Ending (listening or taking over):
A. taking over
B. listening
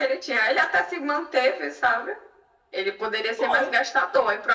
B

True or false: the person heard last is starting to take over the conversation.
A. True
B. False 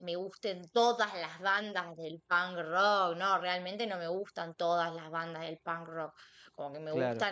B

